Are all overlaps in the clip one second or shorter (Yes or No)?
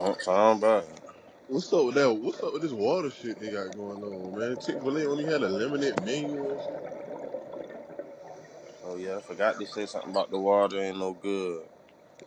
Yes